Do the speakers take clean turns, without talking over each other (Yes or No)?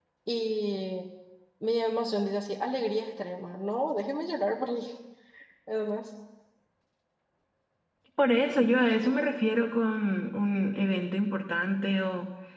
Yes